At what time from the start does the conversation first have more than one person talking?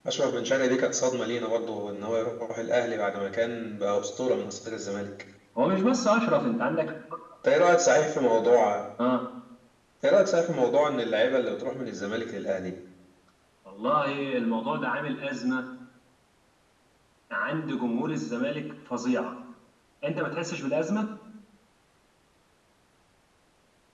none

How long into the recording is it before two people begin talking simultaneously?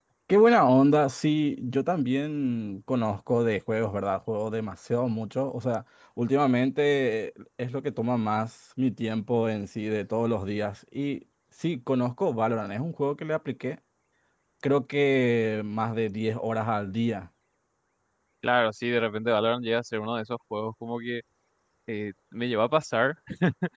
none

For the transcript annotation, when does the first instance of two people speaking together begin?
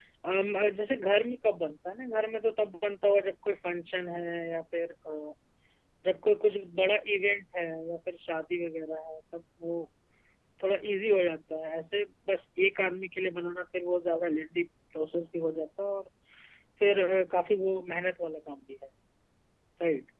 none

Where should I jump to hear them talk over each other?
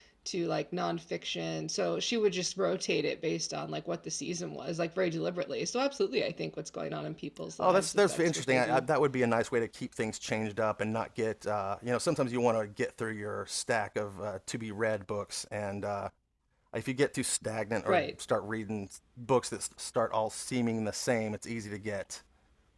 8 s

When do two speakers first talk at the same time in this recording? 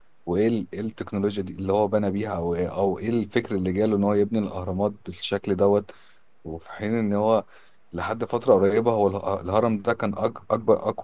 none

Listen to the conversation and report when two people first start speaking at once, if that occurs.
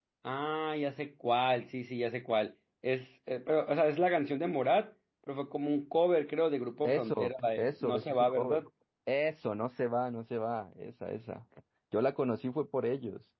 7 s

